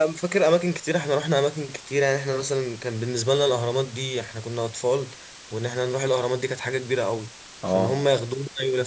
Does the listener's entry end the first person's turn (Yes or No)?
No